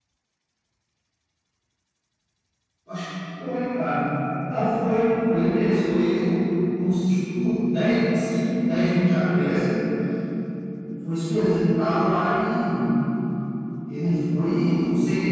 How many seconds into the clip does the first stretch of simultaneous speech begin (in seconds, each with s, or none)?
none